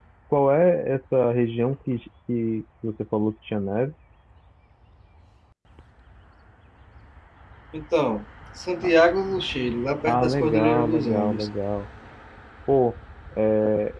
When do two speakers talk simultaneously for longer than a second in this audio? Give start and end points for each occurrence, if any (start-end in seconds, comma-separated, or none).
10.1-11.5